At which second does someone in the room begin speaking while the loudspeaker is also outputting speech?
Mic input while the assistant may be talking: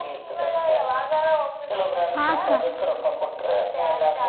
2.1 s

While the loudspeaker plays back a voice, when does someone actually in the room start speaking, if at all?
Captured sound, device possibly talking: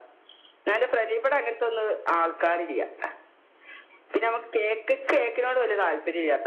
none

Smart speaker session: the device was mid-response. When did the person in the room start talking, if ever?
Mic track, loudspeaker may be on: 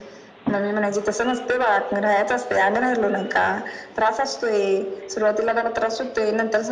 none

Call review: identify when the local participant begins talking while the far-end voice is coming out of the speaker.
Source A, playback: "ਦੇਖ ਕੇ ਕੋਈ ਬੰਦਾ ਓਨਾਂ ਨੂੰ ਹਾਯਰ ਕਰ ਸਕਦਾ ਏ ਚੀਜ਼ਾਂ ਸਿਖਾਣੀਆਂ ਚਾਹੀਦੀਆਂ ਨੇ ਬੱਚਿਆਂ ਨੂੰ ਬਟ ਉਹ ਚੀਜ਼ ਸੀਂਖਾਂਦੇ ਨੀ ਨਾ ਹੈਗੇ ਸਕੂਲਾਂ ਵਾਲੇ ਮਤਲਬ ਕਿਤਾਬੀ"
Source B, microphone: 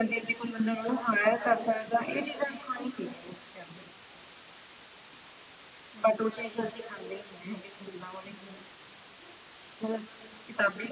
none

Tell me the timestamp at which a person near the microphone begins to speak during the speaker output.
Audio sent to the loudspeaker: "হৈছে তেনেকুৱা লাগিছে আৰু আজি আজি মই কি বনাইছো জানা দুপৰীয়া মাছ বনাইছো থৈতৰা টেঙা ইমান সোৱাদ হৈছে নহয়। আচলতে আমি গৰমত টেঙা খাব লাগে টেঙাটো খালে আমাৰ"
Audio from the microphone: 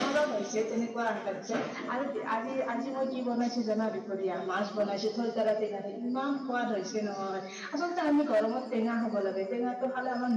none

